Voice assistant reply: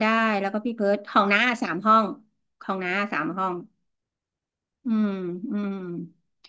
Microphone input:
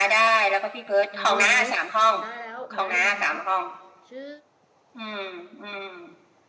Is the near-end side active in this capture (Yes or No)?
Yes